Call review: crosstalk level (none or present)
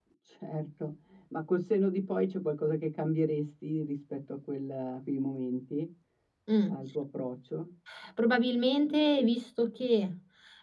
none